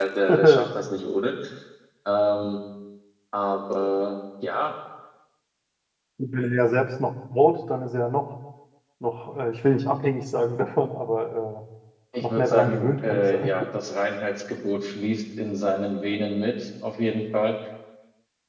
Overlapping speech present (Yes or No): Yes